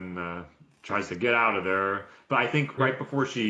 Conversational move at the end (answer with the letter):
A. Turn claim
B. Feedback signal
B